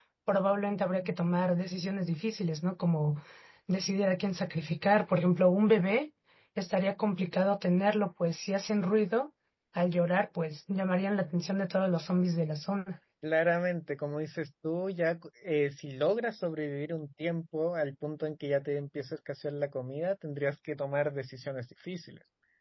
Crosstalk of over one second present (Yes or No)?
No